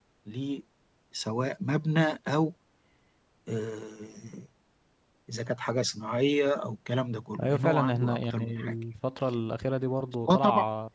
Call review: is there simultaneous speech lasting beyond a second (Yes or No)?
Yes